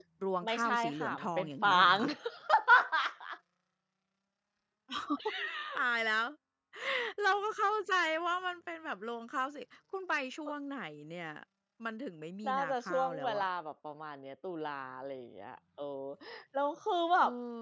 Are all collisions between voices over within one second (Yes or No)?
No